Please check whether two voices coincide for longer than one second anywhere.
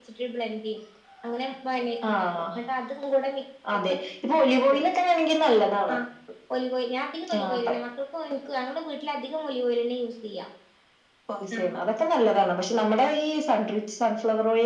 No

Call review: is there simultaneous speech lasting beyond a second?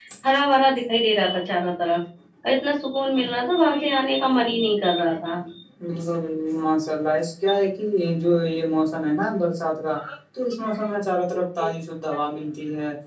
No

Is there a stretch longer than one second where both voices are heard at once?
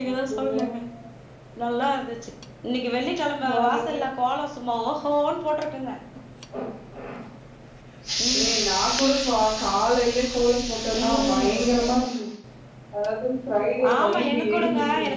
Yes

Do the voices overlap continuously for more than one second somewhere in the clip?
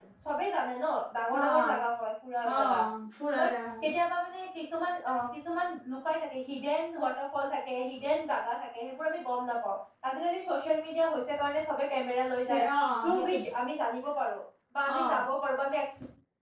No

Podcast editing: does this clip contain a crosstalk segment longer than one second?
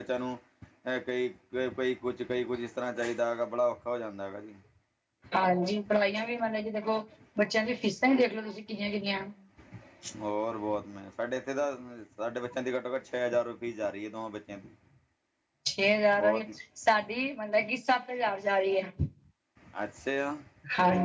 No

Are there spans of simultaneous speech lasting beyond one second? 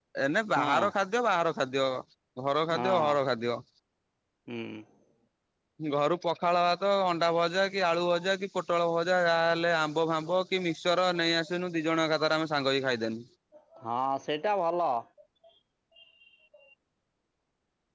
No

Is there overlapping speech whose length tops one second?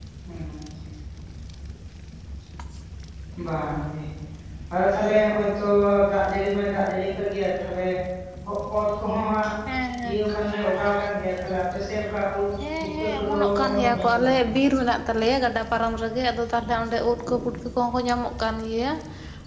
Yes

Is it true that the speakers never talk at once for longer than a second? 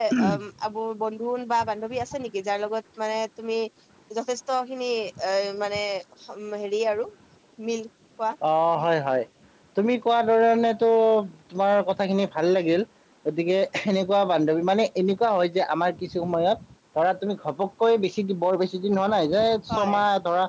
Yes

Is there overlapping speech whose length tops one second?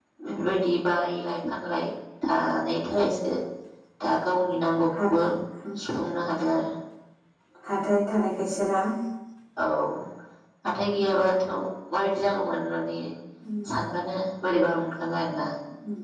No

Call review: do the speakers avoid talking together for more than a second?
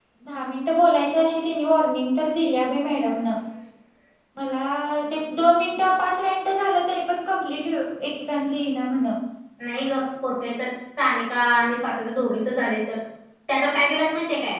Yes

